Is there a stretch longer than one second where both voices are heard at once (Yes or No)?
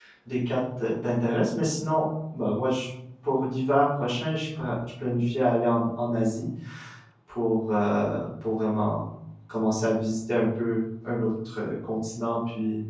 No